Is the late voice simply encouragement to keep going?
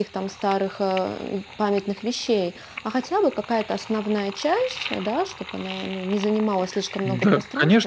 No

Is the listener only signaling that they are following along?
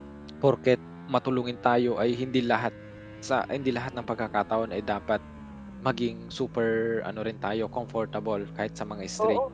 No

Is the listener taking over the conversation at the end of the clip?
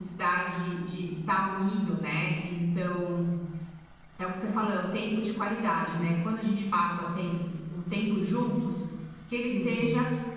No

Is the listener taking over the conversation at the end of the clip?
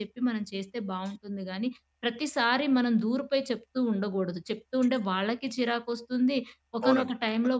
No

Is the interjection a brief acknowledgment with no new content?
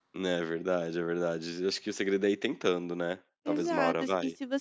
No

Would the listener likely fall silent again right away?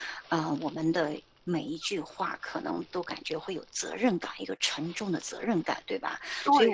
No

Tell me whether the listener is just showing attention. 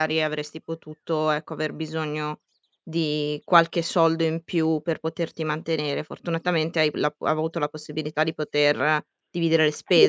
No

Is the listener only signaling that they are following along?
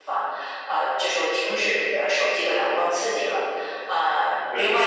Yes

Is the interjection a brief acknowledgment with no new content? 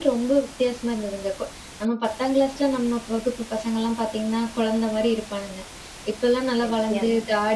Yes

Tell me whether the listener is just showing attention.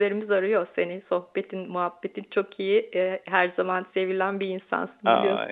No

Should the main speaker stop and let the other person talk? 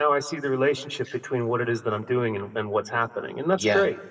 Yes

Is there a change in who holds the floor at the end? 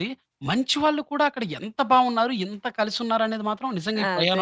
Yes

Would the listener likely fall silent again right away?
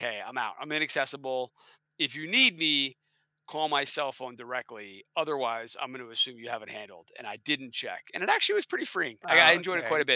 Yes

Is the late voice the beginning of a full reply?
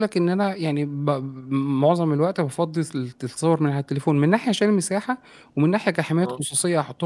No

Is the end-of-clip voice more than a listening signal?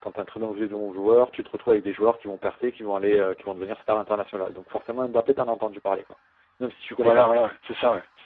Yes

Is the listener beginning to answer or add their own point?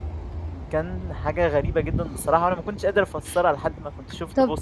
Yes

